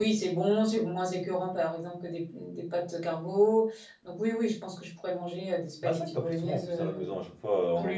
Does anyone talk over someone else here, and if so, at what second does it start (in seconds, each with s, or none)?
5.8 s